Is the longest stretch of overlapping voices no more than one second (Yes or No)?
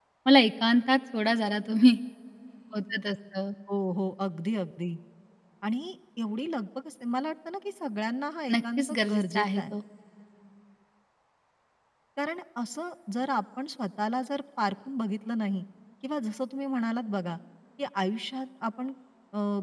No